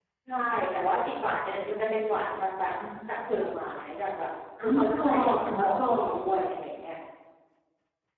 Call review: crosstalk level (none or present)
present